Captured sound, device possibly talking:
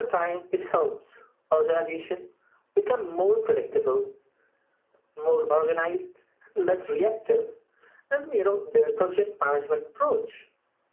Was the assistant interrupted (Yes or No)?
No